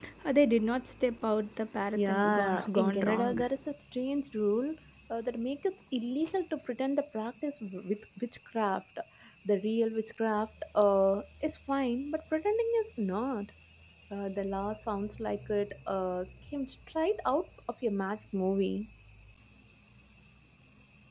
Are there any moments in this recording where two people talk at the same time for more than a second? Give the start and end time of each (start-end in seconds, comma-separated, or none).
1.9-3.5